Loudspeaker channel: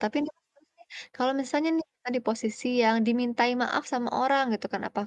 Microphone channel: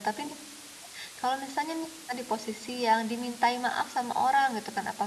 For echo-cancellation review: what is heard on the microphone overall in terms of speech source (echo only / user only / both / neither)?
echo only